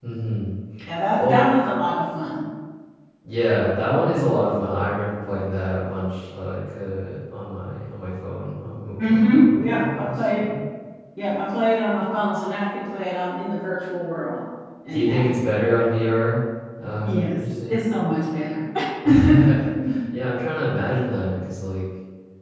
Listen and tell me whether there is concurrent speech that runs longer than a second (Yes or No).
Yes